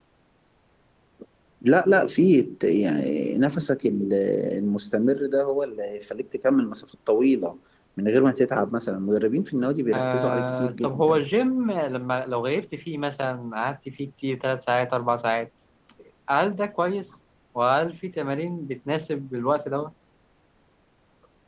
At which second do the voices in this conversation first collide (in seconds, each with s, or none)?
9.9 s